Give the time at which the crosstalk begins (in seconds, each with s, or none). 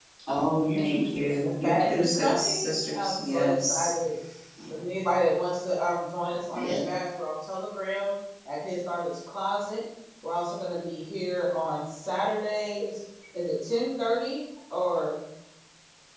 0.8 s